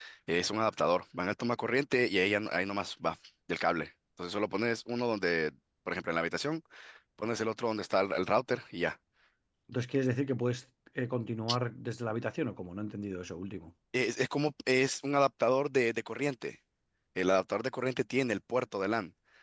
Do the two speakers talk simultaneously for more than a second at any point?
No

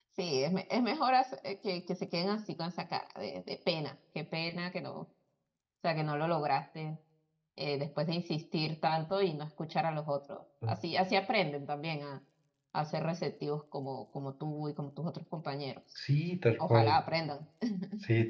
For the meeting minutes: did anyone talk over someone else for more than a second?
No

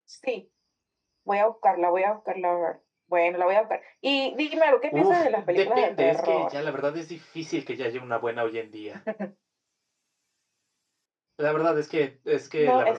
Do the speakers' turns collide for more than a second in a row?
Yes, from 4.9 s

